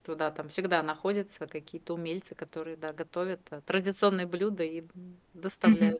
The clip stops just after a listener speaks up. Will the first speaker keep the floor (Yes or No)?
No